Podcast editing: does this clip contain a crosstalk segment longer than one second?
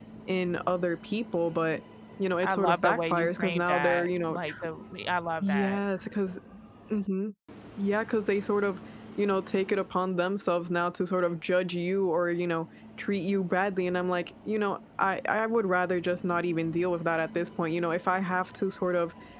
Yes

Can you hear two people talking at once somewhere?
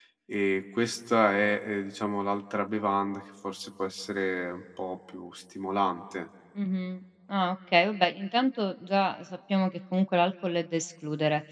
No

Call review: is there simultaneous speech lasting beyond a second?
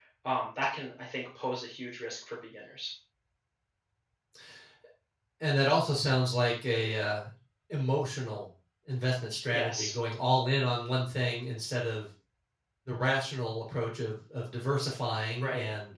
No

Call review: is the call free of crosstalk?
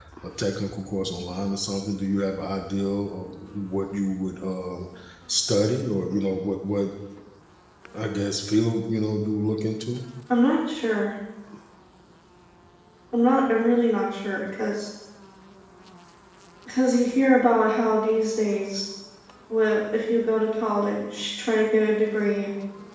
Yes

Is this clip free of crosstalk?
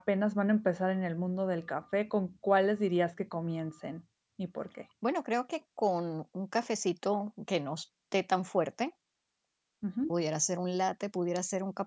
Yes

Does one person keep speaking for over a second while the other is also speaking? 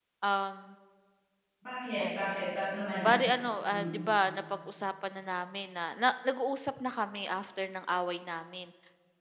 No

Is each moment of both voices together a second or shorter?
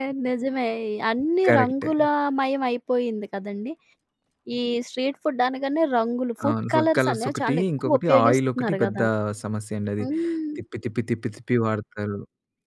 No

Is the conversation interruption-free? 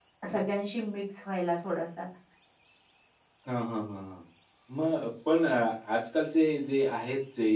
Yes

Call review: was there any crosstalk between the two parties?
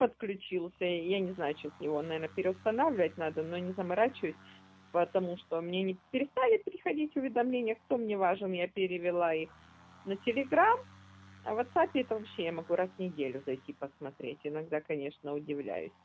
No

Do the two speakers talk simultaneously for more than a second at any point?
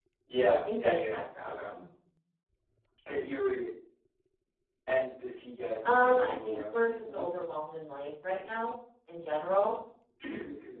Yes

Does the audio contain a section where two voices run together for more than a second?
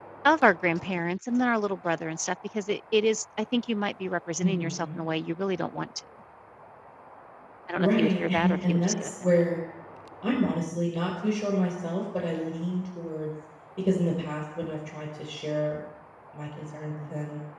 Yes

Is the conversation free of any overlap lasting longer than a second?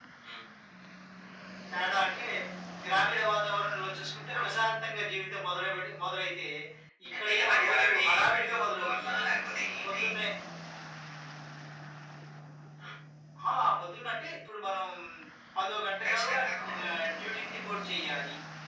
No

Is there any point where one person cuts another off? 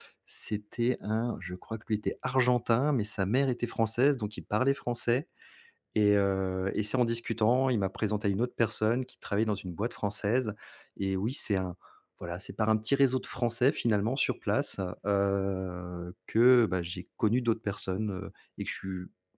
No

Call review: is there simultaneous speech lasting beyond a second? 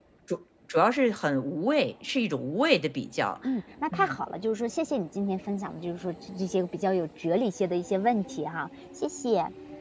No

